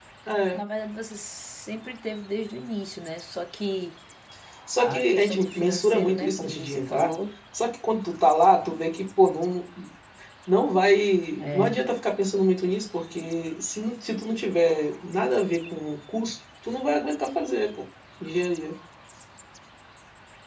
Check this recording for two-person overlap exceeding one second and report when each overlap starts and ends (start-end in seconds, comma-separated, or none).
4.8-7.1